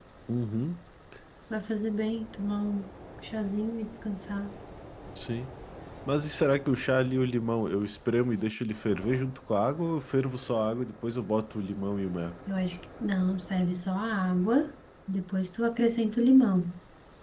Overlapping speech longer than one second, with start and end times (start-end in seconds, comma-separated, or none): none